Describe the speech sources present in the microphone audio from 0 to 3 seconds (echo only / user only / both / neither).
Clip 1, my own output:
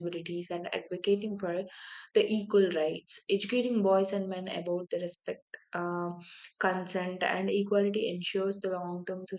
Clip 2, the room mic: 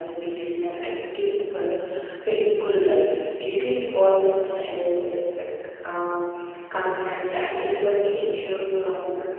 echo only